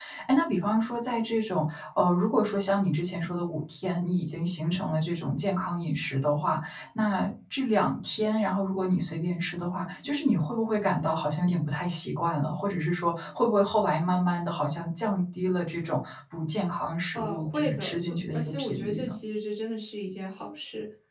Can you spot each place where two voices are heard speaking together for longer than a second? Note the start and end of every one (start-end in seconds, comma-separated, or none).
17.1-19.1